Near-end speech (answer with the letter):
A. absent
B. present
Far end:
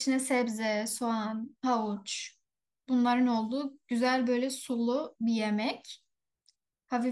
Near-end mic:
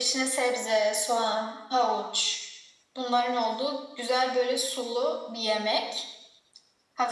A